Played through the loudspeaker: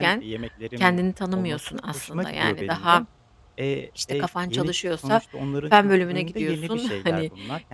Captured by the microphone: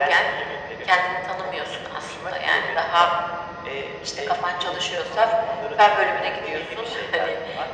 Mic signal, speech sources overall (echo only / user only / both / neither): echo only